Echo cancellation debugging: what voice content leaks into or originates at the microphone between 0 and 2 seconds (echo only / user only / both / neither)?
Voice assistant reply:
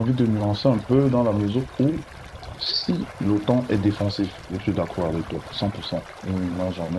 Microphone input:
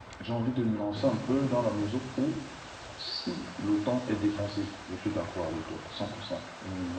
echo only